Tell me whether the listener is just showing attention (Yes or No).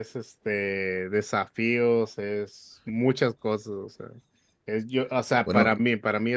Yes